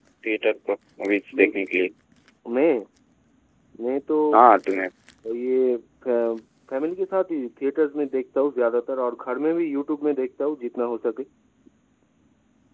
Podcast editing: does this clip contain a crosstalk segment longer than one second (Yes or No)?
No